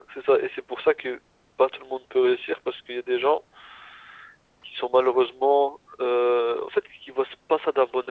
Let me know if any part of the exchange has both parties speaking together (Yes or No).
No